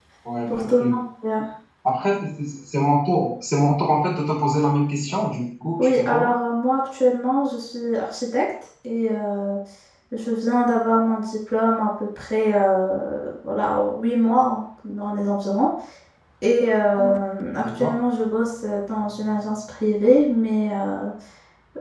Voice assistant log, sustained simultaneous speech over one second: none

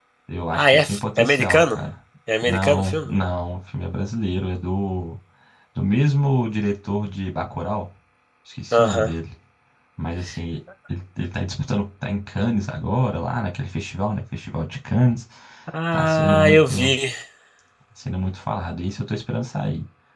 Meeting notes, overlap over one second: present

